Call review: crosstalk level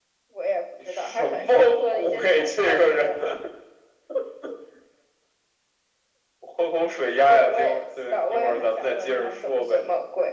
present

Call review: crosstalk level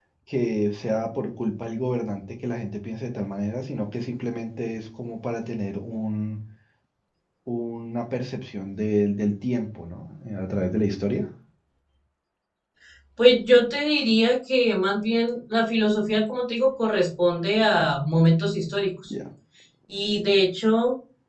none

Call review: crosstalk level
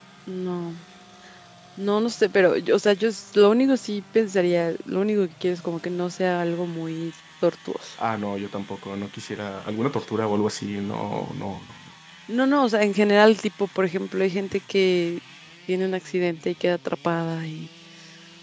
none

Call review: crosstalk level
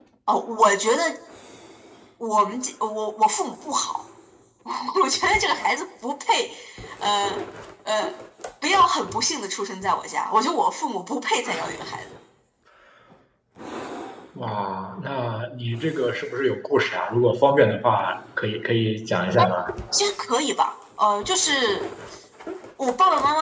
none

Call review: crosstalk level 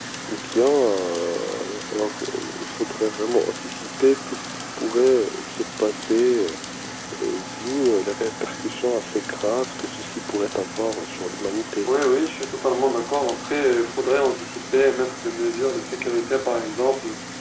none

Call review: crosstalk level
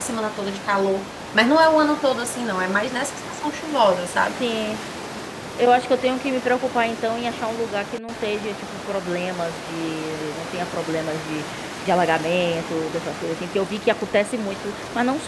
none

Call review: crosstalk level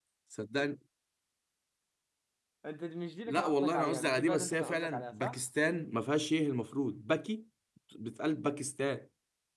present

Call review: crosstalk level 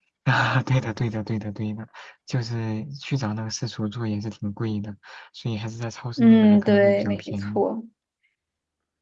present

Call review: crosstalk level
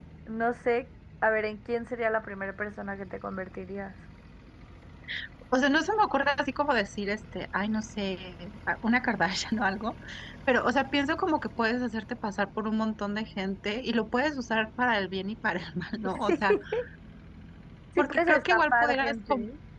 present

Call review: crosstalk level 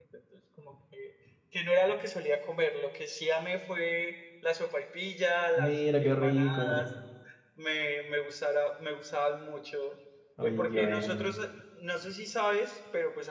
present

